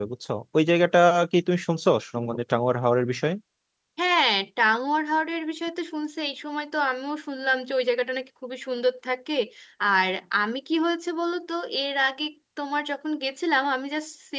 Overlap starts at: none

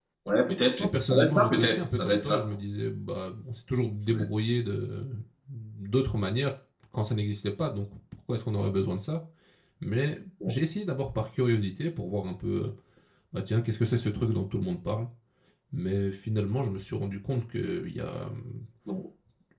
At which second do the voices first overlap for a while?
1 s

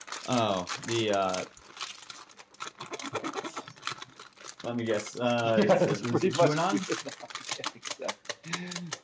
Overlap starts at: 5 s

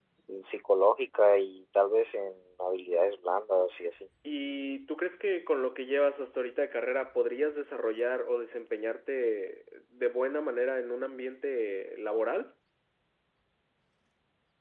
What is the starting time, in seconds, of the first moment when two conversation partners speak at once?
none

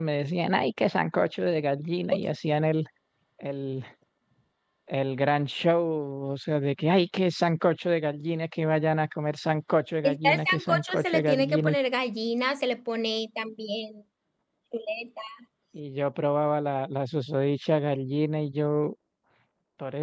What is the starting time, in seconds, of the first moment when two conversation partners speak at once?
10 s

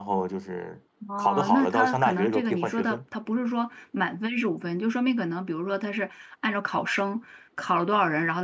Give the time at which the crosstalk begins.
1 s

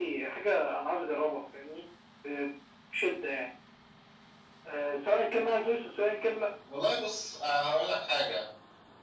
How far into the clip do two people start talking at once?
none

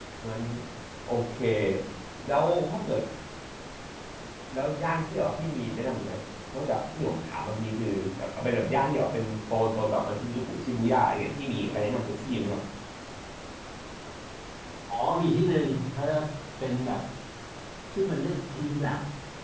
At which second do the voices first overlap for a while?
none

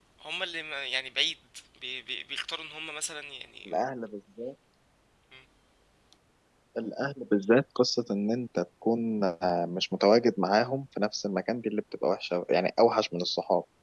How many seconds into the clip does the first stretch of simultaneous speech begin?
none

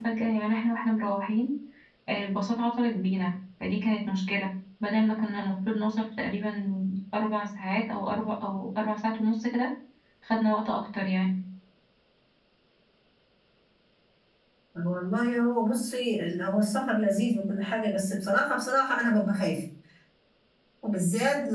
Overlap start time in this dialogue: none

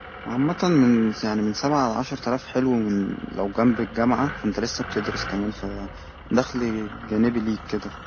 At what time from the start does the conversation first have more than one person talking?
none

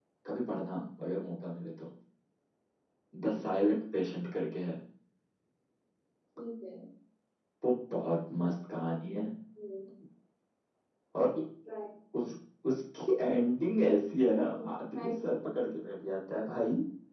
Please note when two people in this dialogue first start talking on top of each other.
14 s

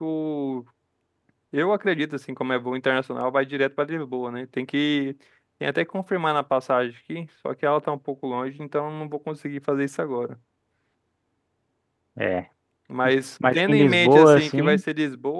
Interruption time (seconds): 14 s

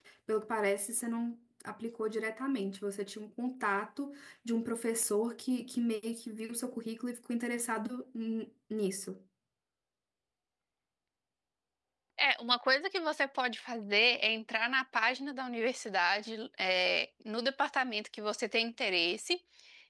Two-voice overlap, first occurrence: none

